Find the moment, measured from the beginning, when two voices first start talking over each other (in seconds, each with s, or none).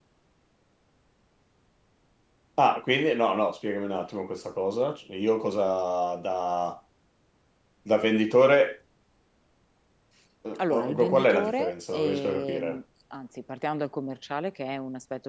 10.6 s